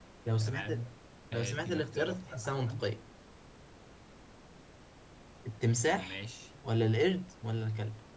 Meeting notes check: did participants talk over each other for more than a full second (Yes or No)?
Yes